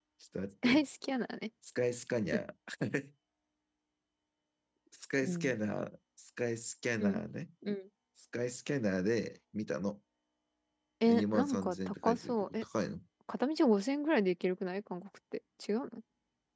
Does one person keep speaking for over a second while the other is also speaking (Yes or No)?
Yes